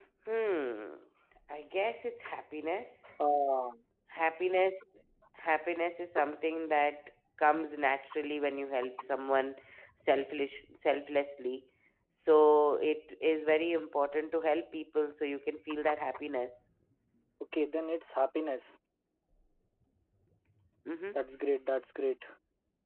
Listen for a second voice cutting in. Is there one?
No

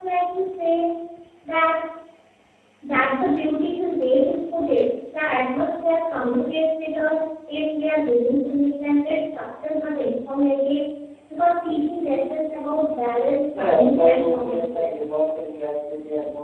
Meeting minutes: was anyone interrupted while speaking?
Yes, from 13.6 s

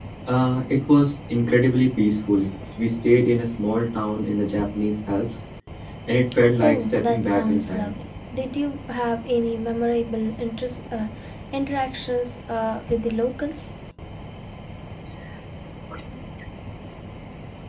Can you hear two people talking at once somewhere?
Yes, from 6.6 s

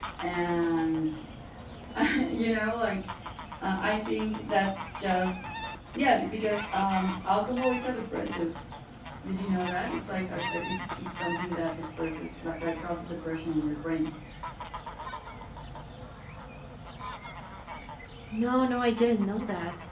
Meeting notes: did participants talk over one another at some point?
No

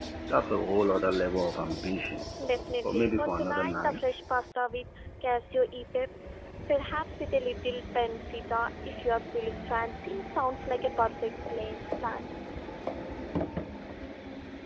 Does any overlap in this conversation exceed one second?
Yes, from 2.8 s

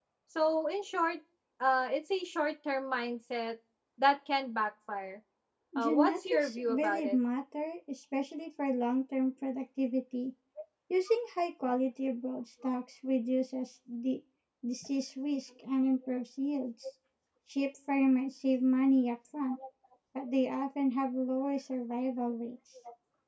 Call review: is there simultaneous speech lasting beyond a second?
Yes, from 5.8 s

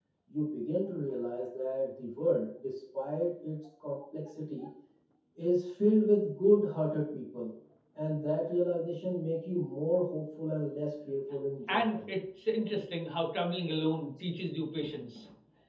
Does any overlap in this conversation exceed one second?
No

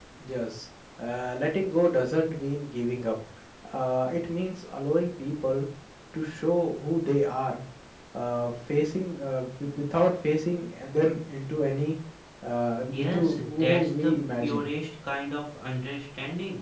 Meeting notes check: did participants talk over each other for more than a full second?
Yes, from 12.9 s

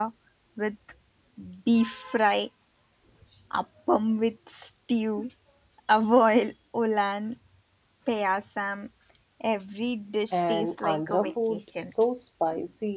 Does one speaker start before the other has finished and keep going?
Yes, from 10.3 s

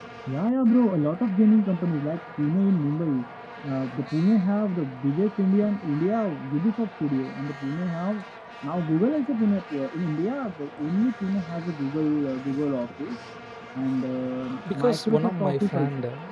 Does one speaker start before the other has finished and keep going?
Yes, from 14.6 s

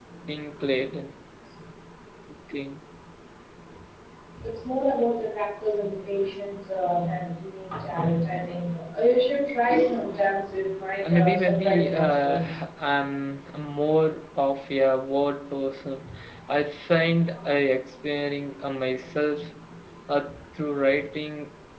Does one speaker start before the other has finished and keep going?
Yes, from 11.0 s

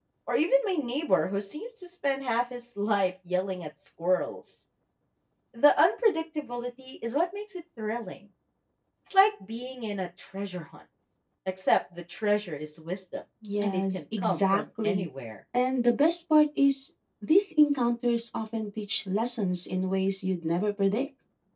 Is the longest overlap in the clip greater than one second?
Yes, from 13.4 s

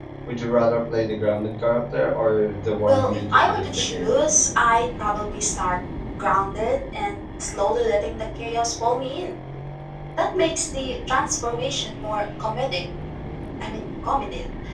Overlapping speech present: Yes, from 2.9 s

